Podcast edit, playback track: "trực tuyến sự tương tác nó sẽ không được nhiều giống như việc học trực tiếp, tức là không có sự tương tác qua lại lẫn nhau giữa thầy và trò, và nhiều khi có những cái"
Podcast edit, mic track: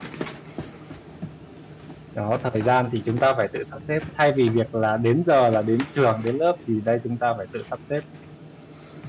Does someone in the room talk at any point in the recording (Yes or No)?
Yes